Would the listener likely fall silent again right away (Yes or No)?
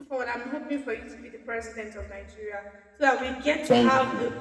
Yes